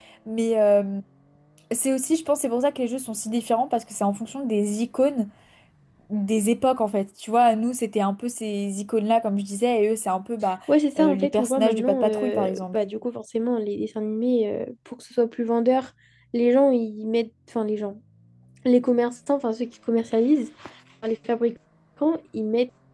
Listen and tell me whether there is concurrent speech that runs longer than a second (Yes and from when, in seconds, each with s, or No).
Yes, from 11.0 s